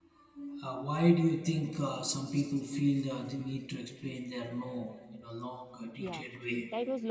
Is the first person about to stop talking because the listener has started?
Yes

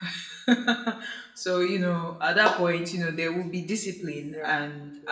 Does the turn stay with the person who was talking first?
No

